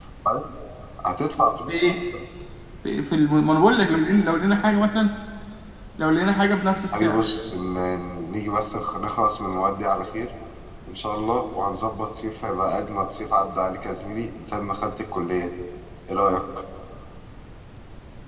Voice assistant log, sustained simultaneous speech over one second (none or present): none